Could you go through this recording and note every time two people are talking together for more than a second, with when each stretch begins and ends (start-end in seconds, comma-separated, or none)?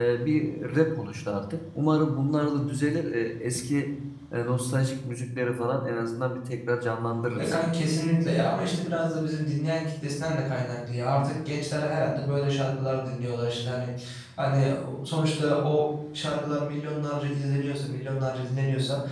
none